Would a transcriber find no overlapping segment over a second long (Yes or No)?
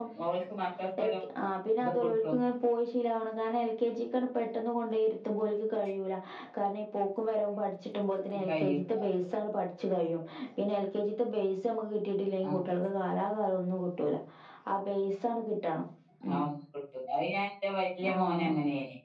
Yes